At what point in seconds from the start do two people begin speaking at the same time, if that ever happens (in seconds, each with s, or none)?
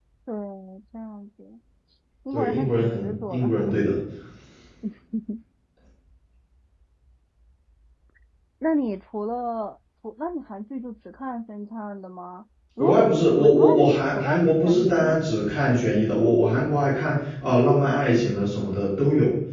2.3 s